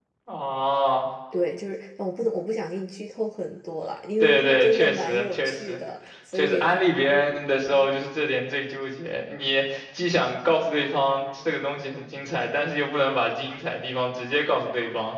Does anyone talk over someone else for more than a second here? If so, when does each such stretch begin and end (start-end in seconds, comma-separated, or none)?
4.2-5.8